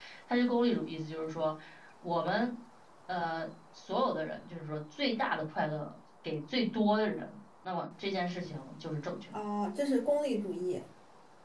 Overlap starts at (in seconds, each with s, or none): none